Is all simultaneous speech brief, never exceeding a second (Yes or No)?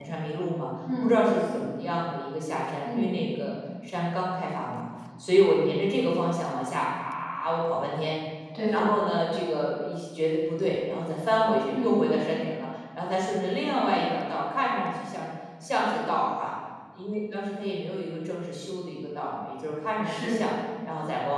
Yes